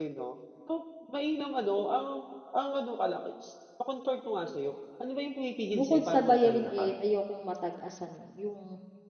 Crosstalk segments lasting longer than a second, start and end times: 5.7-6.9

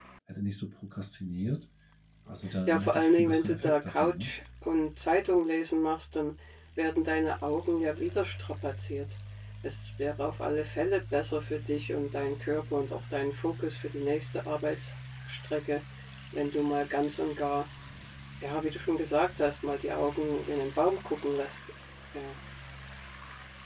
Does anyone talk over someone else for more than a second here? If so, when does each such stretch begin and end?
2.7-4.3

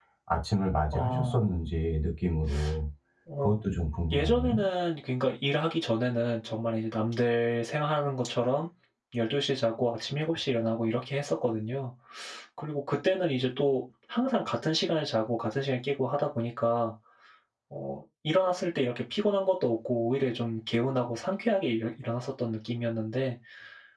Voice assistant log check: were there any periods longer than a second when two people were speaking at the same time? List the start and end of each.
none

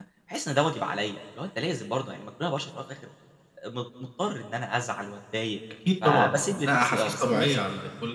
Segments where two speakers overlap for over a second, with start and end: 6.0-7.6

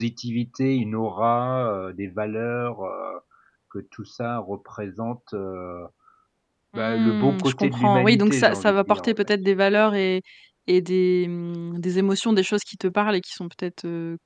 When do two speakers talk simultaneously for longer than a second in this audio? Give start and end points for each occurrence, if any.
6.8-9.1

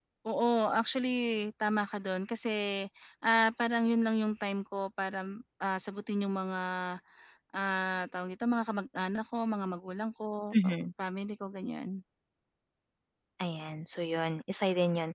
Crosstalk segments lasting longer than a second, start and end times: none

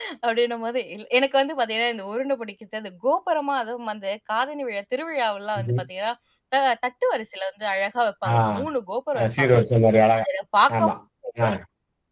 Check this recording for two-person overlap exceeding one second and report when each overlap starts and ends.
none

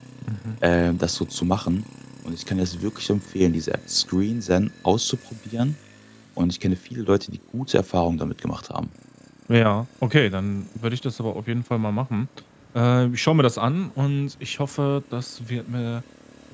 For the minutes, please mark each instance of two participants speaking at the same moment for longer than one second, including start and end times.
none

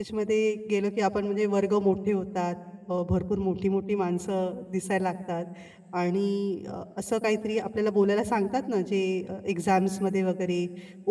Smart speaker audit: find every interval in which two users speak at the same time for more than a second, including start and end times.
none

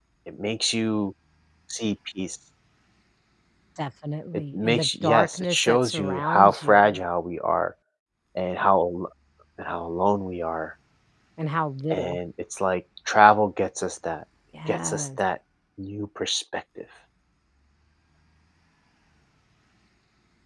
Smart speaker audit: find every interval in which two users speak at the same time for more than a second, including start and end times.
4.5-7.0

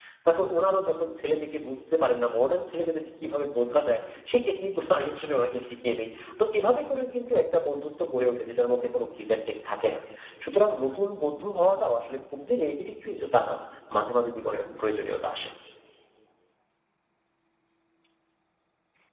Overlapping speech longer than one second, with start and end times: none

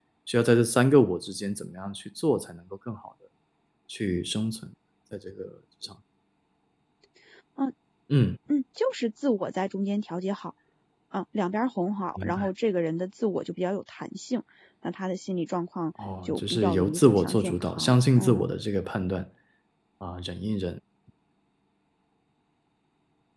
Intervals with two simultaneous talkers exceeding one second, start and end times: 16.2-18.5

